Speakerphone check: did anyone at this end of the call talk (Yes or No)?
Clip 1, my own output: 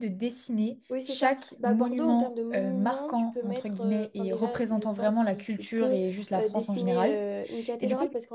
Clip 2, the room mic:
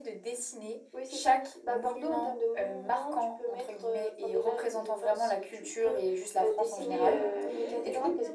Yes